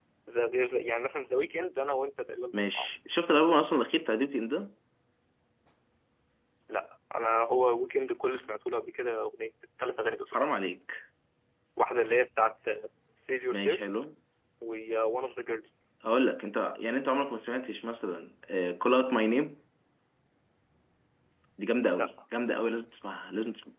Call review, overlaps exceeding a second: none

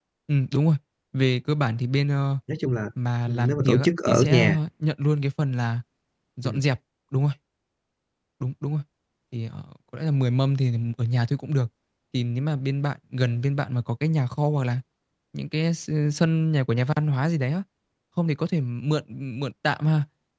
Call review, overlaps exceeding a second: present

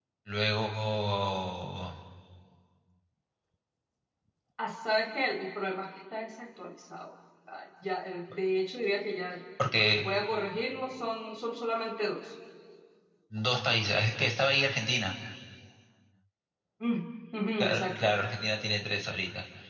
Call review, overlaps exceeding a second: none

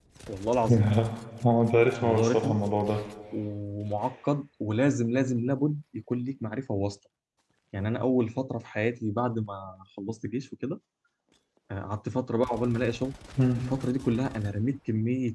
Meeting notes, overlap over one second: none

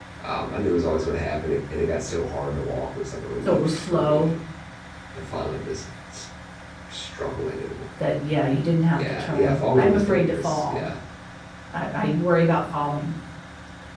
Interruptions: present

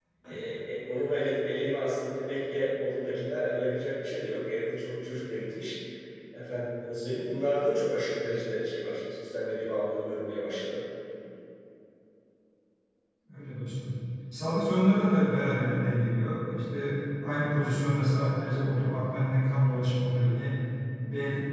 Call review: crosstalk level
none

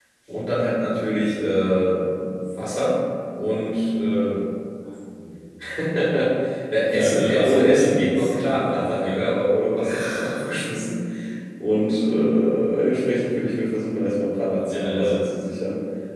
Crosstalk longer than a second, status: present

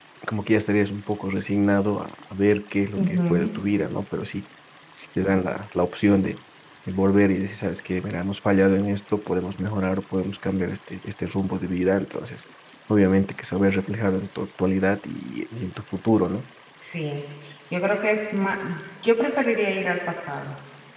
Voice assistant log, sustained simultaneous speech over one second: none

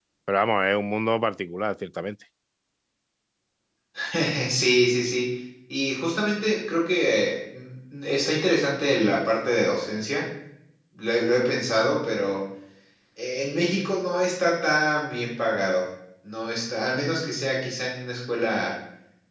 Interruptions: none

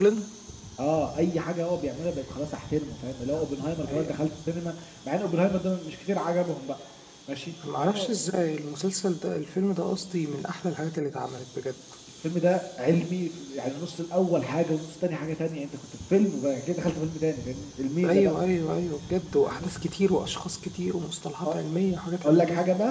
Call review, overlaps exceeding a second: none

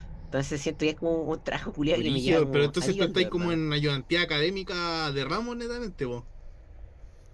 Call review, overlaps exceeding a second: present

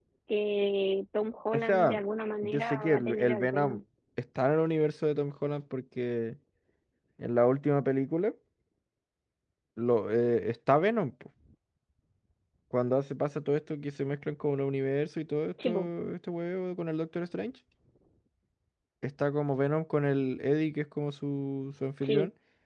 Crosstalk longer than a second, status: present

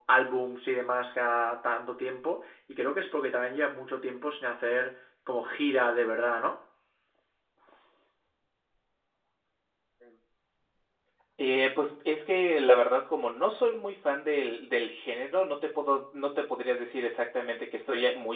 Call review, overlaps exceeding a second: none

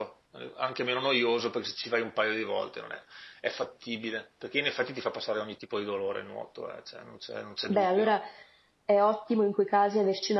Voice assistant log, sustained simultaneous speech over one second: none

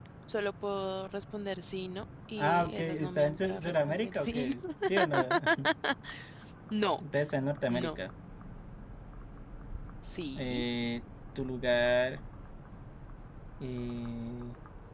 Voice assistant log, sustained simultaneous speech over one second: present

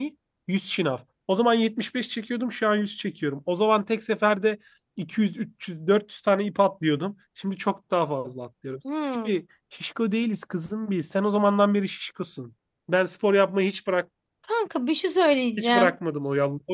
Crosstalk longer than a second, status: none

